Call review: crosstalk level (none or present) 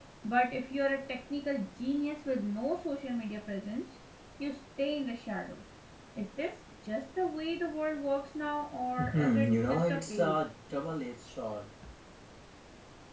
present